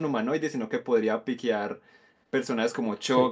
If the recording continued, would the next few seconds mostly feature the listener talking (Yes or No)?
No